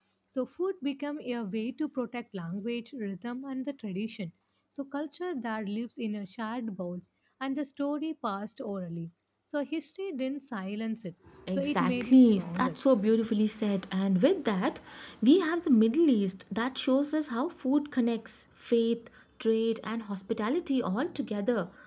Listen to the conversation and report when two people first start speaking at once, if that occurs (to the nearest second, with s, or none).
11 s